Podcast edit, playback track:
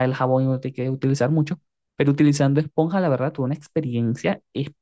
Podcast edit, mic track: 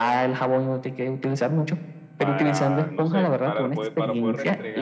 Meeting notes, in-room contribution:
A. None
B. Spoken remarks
B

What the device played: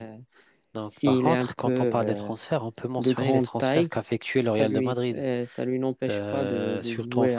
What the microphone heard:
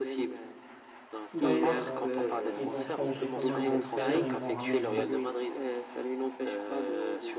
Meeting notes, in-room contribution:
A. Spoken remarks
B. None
A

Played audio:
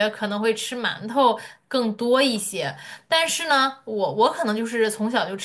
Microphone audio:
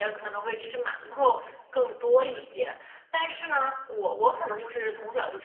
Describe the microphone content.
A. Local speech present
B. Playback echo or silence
B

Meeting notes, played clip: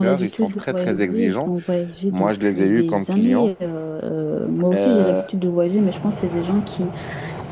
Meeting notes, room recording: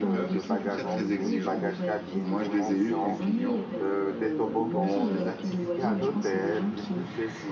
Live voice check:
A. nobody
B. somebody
B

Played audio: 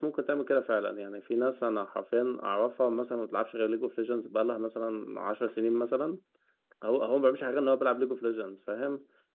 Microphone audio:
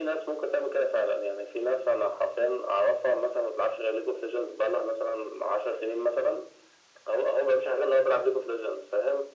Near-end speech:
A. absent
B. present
A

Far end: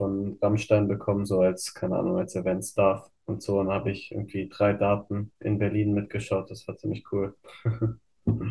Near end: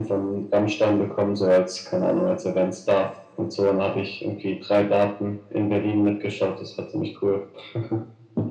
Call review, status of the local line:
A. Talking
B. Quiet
B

